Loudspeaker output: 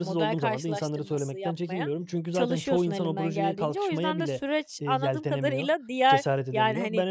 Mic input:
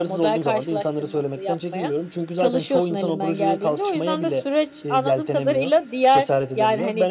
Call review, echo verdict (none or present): present